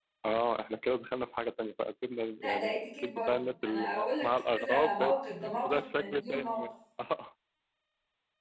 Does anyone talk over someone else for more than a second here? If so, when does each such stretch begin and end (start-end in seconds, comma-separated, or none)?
2.4-6.6